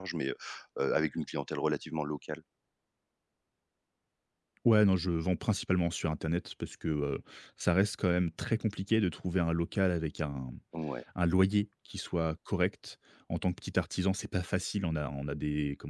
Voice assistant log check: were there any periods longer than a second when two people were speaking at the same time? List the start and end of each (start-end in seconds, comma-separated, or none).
none